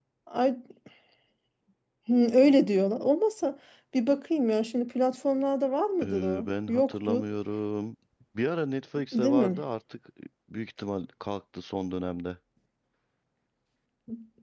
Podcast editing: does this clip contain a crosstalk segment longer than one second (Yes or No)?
Yes